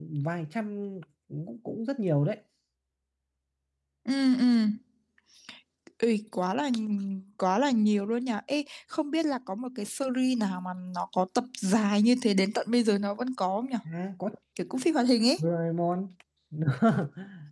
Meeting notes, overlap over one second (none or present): none